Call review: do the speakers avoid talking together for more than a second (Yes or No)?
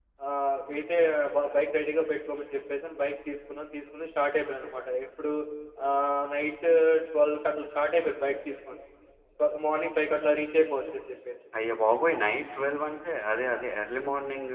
Yes